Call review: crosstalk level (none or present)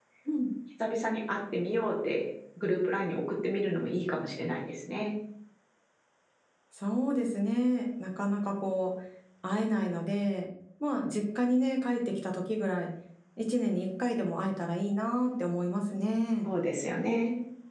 none